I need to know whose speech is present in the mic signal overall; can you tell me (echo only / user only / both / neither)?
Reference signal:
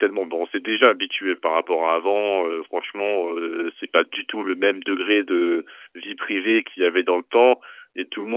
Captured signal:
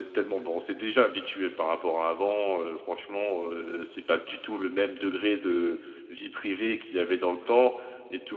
echo only